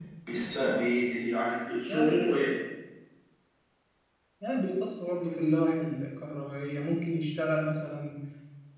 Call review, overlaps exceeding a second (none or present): none